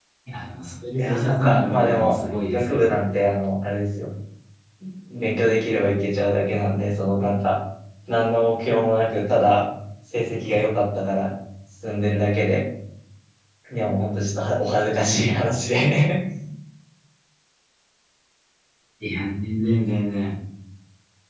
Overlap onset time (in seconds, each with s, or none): 1.0 s